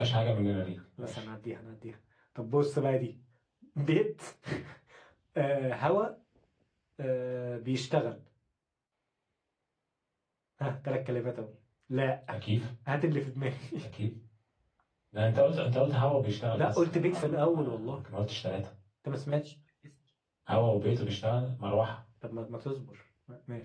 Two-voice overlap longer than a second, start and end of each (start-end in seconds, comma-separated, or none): 16.5-18.0